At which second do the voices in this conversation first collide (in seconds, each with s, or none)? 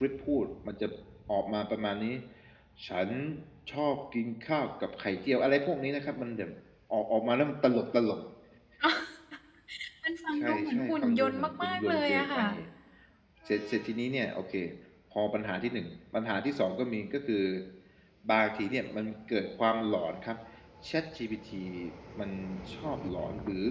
10.4 s